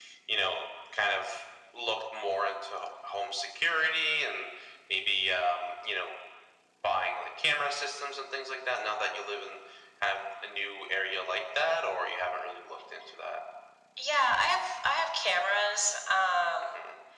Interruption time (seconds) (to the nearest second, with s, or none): none